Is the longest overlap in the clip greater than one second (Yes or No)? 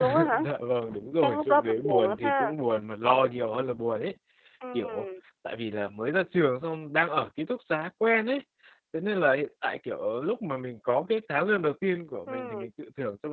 Yes